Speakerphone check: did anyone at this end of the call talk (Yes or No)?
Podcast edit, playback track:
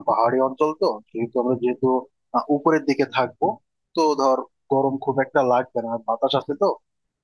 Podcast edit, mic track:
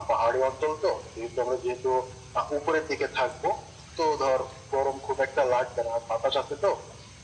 No